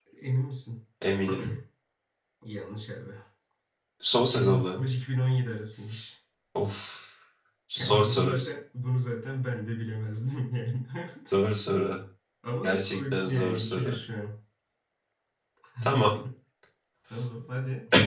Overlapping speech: Yes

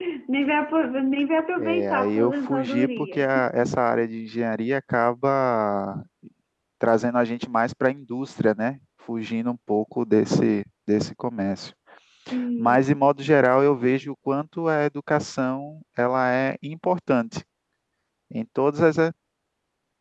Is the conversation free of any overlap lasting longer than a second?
No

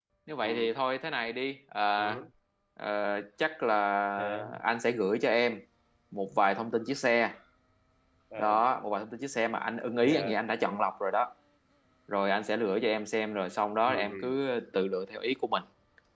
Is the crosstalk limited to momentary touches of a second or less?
Yes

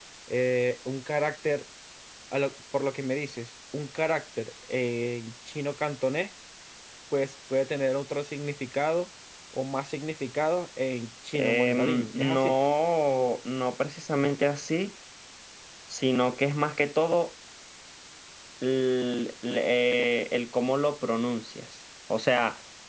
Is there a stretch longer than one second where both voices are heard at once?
Yes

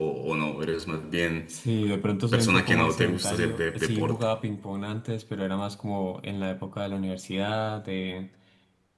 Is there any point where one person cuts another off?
Yes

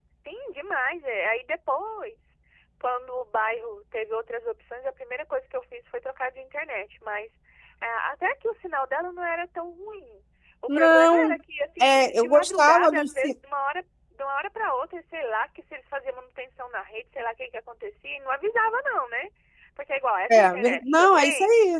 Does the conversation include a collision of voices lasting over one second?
Yes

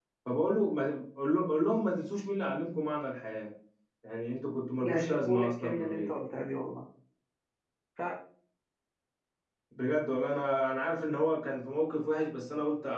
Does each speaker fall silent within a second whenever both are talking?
No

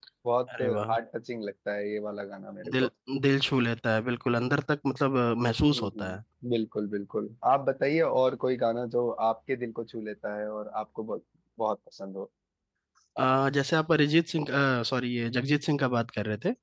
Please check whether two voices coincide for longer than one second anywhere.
No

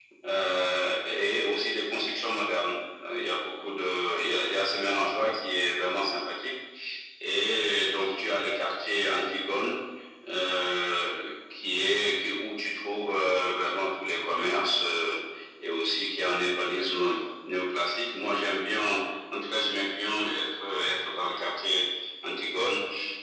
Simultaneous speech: No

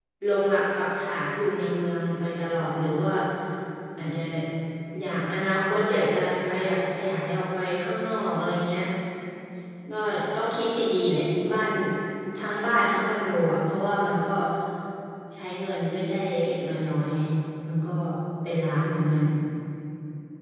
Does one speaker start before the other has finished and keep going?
No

